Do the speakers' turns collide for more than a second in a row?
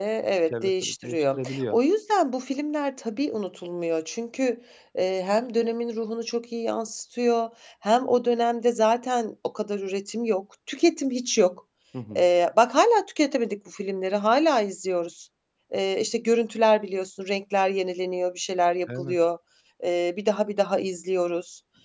Yes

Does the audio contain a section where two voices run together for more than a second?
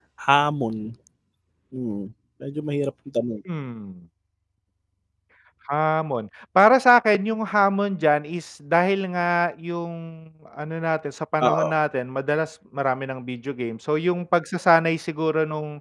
No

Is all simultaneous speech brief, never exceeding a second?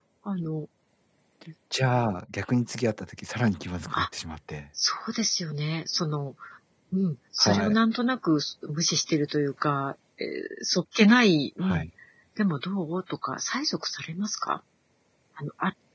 Yes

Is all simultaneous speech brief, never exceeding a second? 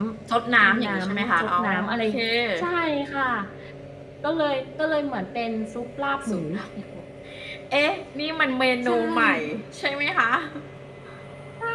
No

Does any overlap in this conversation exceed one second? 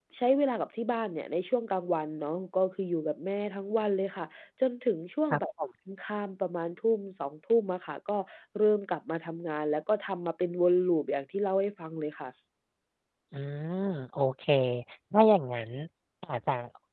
No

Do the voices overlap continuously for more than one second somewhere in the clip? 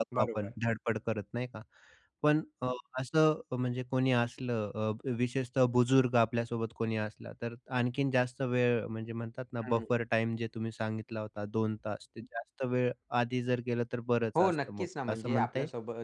Yes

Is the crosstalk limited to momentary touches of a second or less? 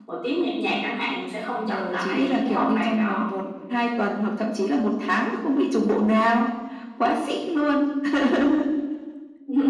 No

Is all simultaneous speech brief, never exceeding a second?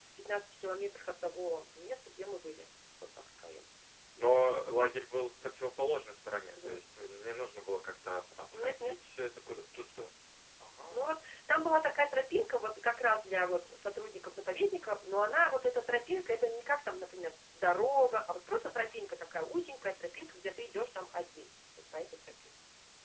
Yes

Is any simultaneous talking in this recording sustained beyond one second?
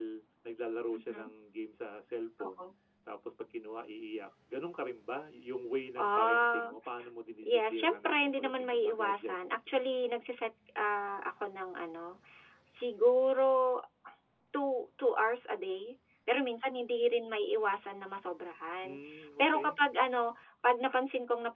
Yes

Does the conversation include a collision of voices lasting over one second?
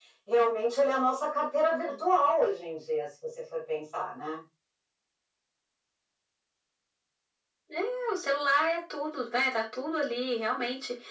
No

